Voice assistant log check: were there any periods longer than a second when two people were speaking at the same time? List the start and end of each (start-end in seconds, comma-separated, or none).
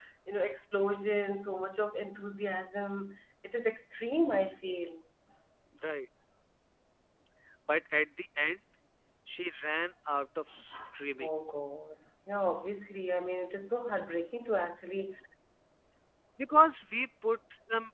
none